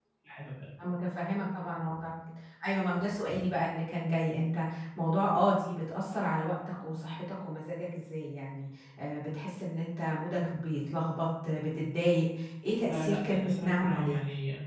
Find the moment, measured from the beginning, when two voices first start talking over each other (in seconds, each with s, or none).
12.8 s